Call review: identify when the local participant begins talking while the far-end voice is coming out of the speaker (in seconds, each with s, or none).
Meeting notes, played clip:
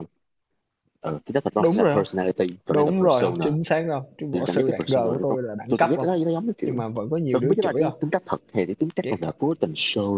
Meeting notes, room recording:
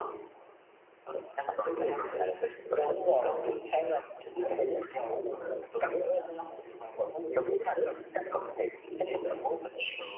none